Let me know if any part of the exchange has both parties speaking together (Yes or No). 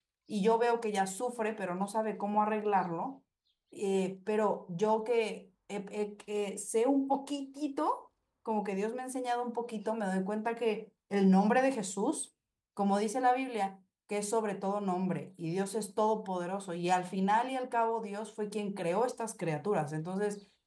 No